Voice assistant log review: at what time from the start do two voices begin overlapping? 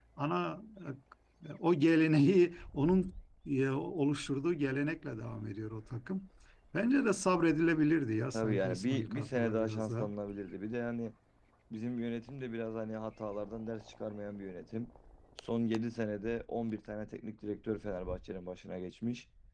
8.3 s

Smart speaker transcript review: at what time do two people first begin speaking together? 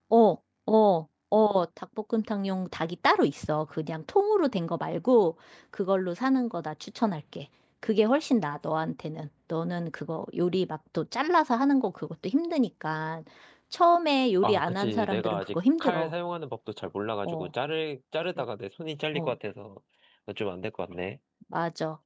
14.4 s

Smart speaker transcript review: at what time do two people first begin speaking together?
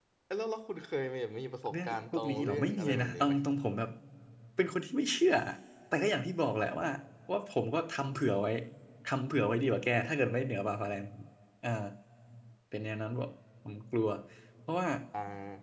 1.7 s

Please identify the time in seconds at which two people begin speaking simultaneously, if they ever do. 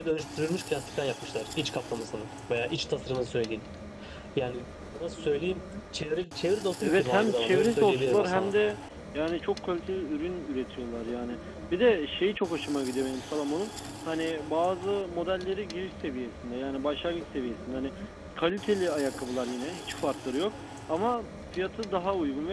6.8 s

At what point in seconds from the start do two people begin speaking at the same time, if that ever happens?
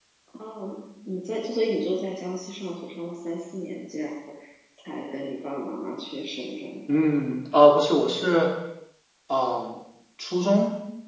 none

